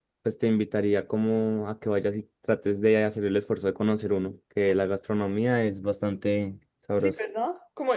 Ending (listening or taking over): taking over